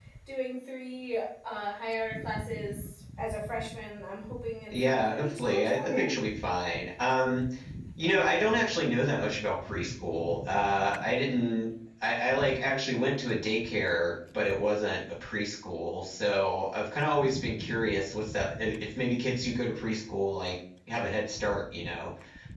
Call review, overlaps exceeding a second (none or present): present